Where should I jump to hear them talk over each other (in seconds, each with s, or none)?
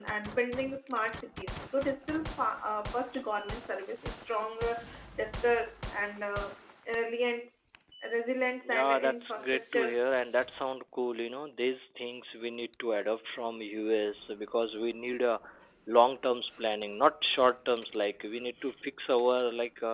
8.7 s